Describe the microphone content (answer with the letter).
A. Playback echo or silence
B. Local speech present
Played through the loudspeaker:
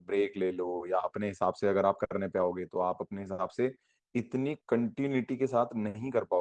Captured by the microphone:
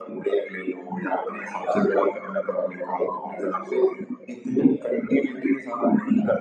A